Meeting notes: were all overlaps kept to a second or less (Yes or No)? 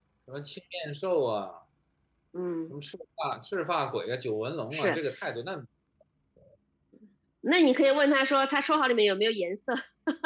Yes